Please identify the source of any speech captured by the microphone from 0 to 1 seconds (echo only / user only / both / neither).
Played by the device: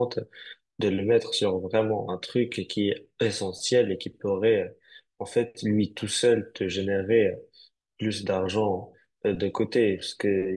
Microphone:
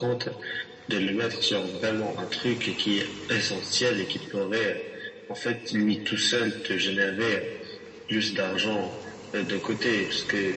echo only